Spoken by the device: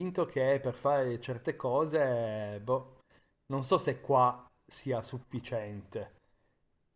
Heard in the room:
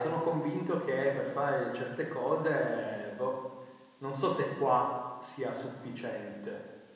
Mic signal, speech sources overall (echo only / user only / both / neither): echo only